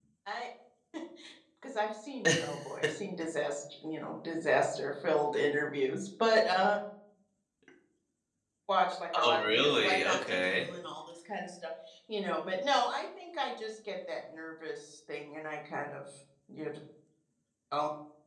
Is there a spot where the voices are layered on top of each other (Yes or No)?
Yes